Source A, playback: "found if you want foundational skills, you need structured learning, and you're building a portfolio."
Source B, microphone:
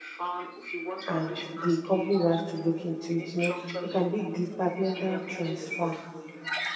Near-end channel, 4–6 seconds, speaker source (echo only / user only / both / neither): both